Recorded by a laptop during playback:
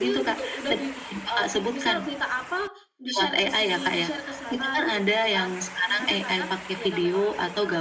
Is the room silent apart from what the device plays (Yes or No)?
Yes